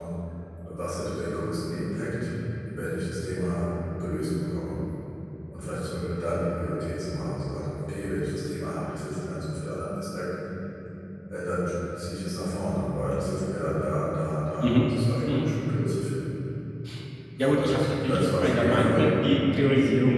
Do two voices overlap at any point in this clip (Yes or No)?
Yes